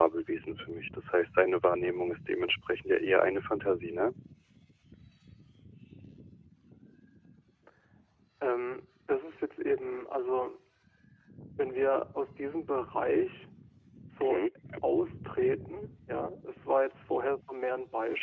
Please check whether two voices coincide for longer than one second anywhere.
No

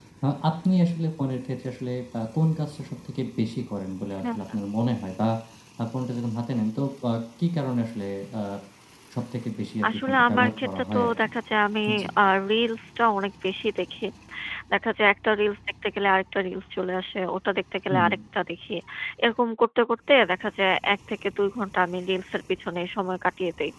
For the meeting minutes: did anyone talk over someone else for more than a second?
Yes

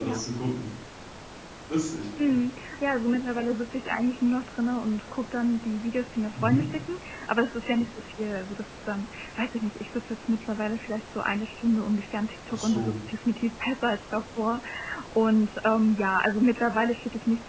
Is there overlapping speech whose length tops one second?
No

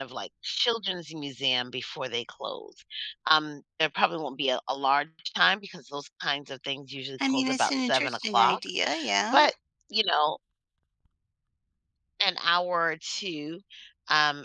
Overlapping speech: Yes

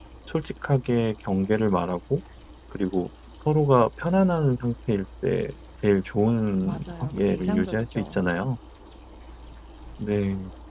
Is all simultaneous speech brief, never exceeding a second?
No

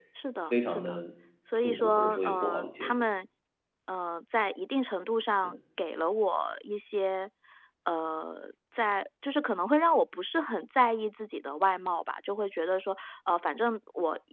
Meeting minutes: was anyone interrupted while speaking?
Yes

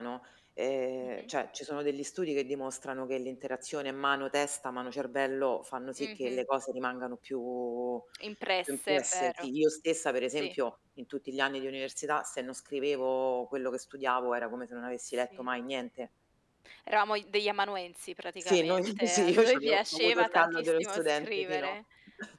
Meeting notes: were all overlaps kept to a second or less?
No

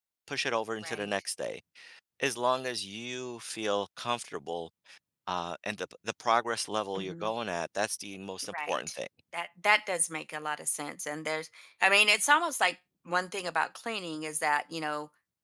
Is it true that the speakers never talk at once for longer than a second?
Yes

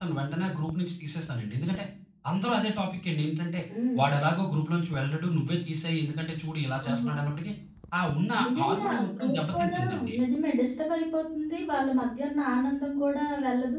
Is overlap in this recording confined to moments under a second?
No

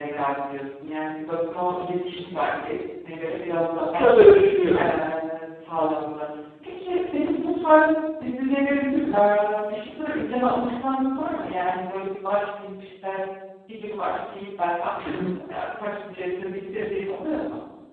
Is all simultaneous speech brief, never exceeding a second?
Yes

